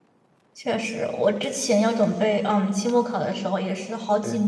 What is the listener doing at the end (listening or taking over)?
listening